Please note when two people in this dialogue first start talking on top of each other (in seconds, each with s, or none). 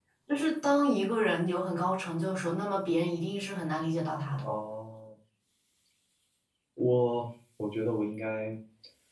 none